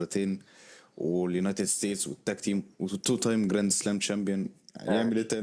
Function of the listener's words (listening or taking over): taking over